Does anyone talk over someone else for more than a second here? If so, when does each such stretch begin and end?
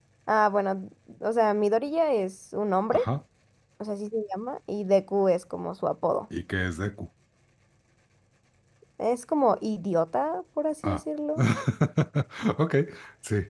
none

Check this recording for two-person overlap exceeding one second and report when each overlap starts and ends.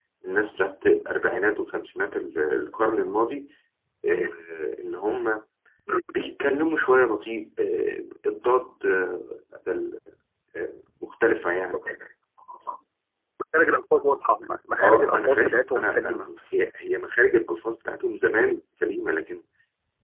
14.8-16.3

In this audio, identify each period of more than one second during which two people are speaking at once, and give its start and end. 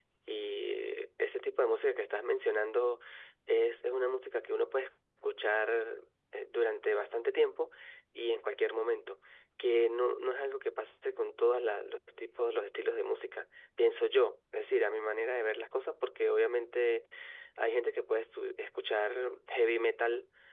none

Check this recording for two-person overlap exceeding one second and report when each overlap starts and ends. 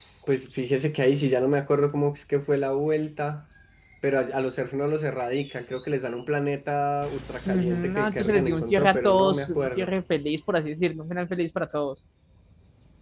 7.5-9.9

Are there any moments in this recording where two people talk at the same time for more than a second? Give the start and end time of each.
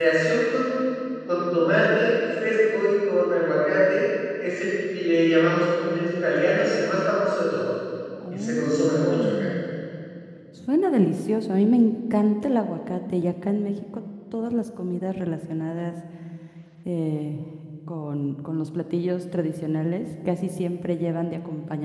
8.3-9.5

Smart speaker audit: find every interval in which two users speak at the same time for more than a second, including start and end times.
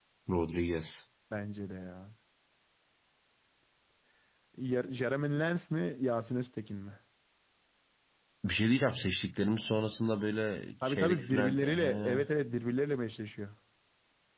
10.9-12.2

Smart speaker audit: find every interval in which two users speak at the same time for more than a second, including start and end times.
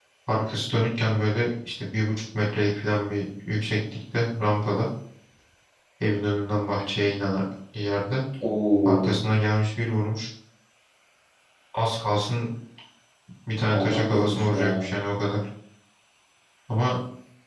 13.7-14.9

